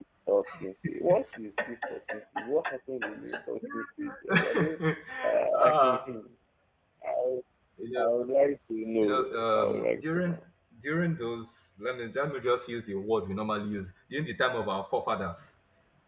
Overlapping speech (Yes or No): Yes